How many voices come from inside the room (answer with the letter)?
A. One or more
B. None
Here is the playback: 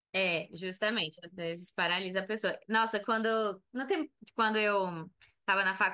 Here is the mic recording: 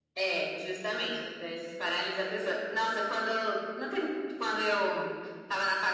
B